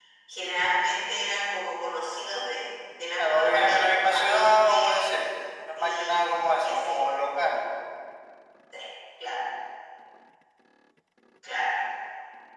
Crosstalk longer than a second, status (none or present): present